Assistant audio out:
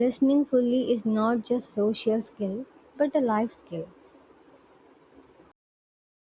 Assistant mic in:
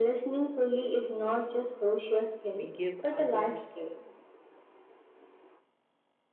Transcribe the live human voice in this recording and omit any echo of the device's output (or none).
we give others